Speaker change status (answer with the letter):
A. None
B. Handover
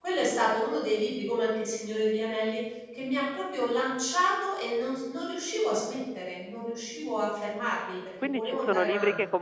B